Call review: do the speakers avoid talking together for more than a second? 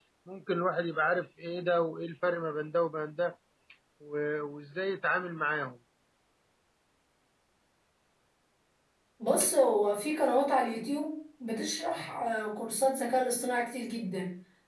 Yes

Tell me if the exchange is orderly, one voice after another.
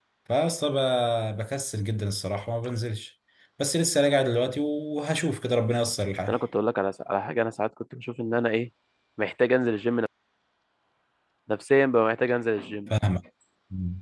Yes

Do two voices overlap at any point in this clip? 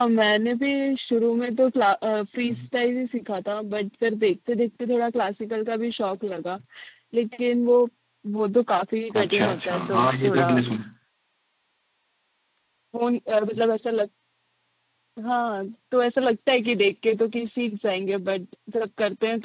Yes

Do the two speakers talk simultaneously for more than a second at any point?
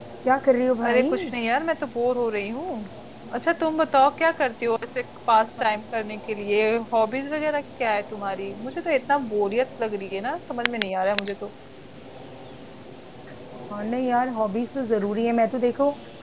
No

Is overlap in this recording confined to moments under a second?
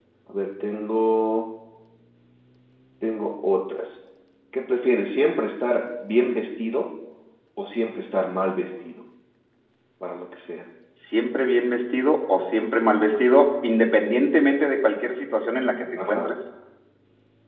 Yes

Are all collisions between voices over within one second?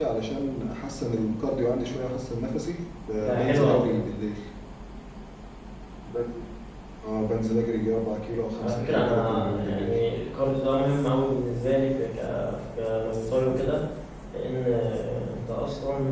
No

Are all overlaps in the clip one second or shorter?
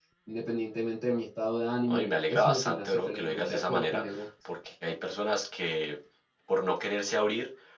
No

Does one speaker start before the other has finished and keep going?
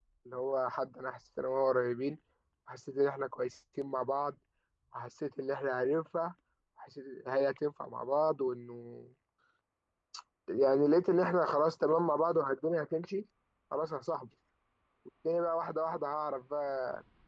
No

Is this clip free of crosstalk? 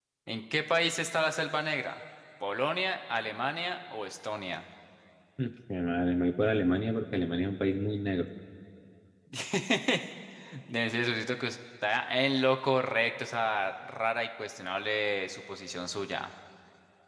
Yes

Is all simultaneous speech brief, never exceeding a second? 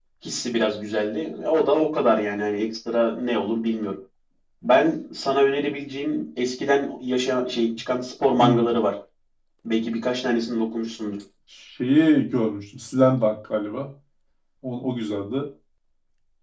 Yes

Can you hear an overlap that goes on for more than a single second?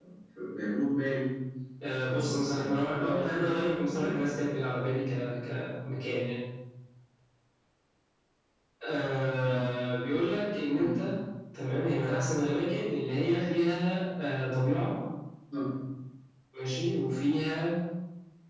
Yes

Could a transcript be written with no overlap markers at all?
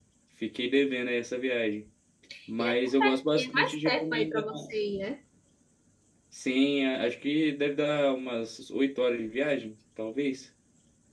No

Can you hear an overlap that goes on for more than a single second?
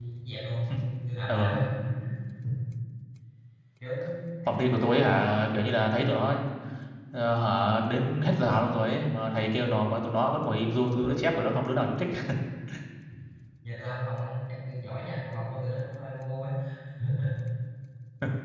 No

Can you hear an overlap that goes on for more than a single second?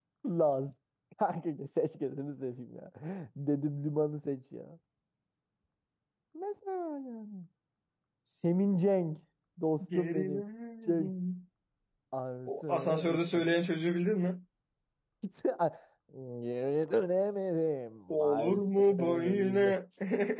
Yes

